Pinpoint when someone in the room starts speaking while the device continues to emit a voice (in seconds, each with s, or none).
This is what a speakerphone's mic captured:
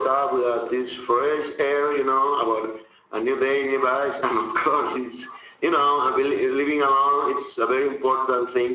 none